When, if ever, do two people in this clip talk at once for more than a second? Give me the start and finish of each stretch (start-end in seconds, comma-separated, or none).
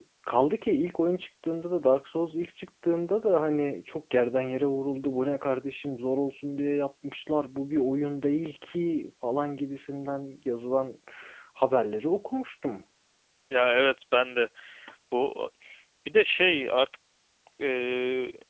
none